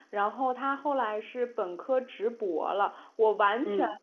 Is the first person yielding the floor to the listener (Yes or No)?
No